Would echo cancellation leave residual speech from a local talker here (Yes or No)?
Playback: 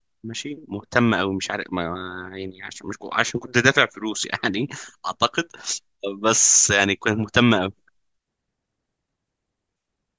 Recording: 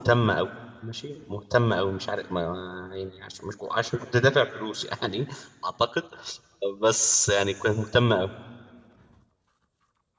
No